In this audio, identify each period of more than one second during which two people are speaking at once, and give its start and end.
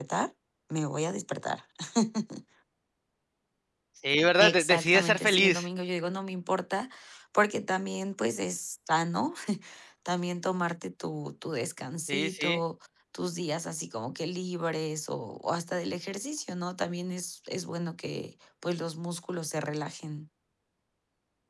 4.4-5.7

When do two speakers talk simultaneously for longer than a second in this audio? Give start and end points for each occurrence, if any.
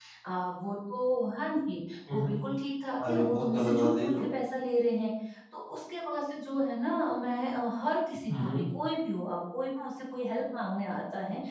3.1-4.3

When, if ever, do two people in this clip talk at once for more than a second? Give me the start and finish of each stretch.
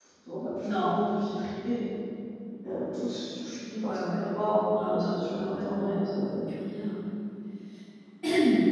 4.9-6.4

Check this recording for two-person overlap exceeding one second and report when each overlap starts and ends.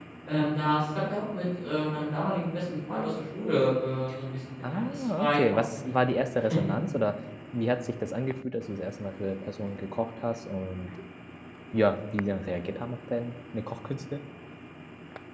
4.6-6.2

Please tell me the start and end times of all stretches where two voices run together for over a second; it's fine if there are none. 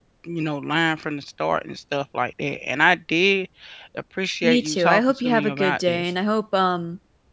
4.4-6.1

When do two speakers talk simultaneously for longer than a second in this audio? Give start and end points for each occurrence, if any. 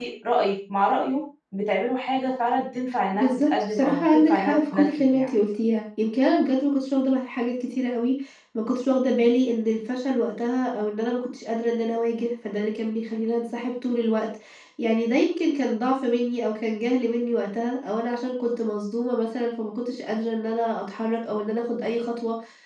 3.1-5.3

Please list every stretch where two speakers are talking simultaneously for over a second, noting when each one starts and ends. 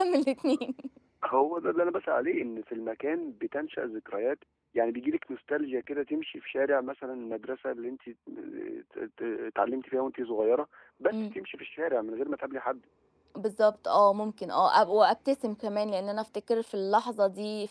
none

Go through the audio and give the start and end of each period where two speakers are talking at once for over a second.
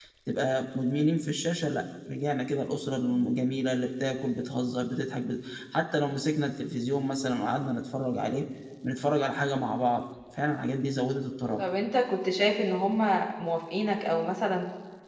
none

